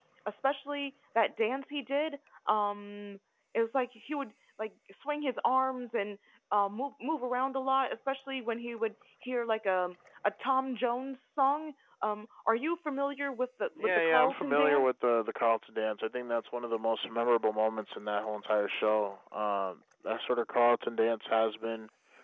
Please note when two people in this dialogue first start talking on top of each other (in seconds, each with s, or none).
13.8 s